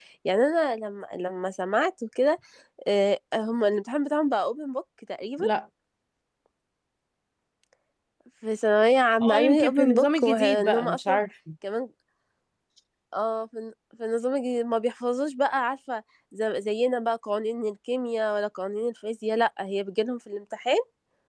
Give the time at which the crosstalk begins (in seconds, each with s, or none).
9.2 s